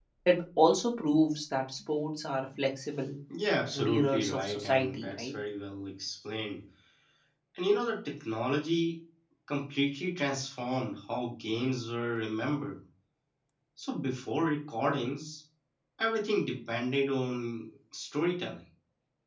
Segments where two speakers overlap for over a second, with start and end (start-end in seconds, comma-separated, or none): 3.7-5.3